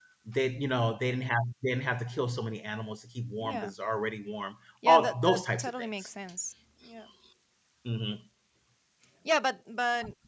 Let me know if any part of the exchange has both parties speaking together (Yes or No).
Yes